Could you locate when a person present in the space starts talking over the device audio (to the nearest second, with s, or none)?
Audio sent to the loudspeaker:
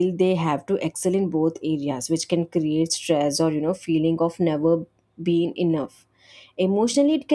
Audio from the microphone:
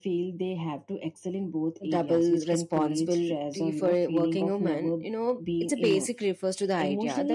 2 s